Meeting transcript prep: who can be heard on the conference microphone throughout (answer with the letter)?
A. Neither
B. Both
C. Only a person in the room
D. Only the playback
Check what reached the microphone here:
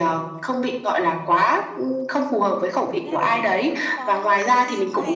B